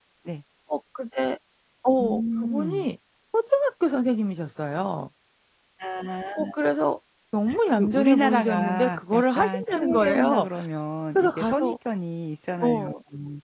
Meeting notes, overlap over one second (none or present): present